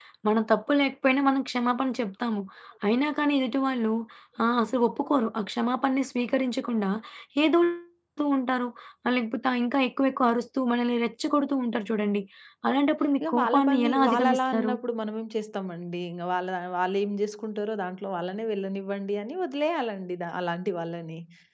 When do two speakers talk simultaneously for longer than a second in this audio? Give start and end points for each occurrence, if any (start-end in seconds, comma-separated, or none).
13.2-14.7